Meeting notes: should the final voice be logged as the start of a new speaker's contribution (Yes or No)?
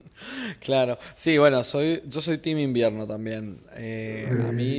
No